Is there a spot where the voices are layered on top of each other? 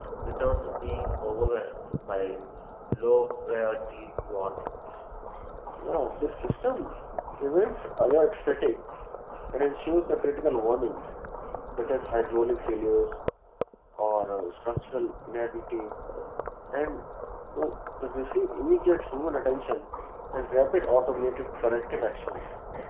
No

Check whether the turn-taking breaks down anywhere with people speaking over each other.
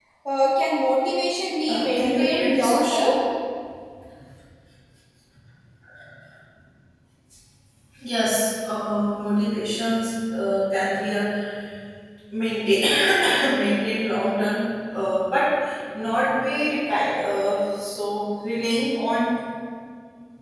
Yes, from 1.7 s

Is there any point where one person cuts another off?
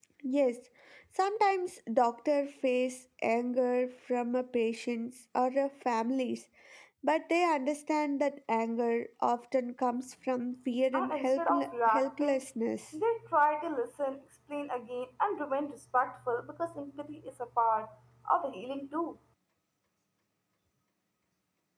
Yes, from 10.9 s

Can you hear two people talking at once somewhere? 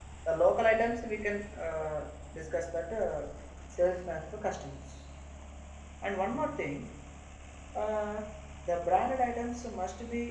No

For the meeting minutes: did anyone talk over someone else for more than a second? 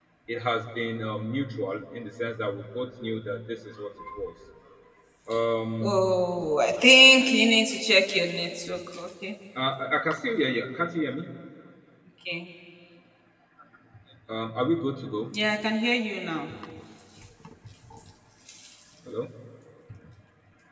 No

